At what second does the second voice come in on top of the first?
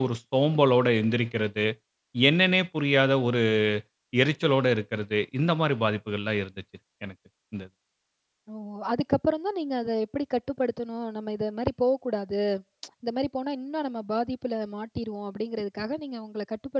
none

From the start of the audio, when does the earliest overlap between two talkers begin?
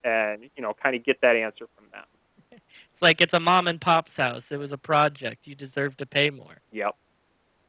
none

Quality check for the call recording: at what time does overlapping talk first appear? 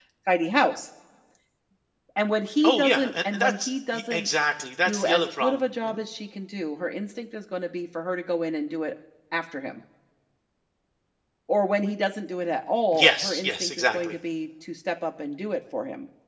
3 s

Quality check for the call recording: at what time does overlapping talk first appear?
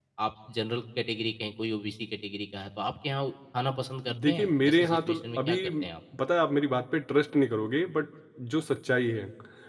4 s

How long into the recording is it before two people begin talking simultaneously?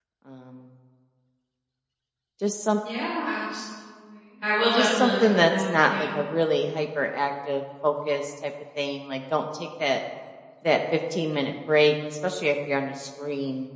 5 s

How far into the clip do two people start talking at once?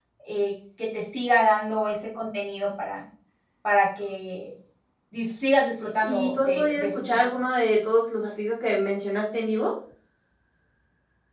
6 s

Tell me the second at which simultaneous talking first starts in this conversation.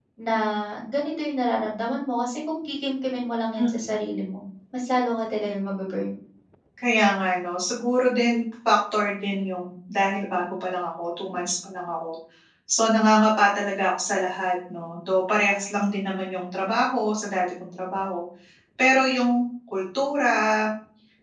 none

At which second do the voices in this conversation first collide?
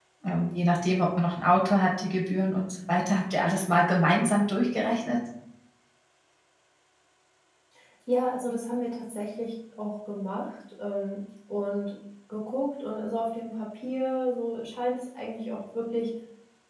none

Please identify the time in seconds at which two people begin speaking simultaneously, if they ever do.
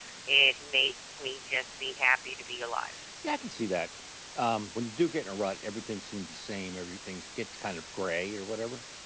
none

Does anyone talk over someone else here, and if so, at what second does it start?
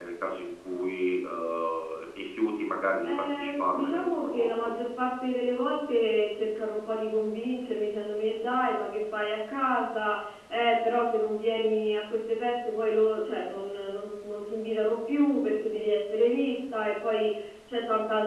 3 s

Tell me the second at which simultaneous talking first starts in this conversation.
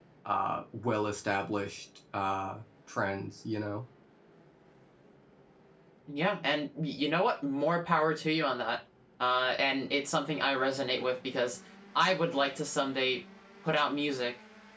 none

